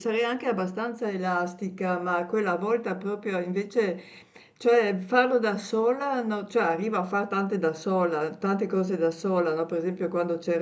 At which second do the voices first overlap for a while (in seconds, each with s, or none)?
none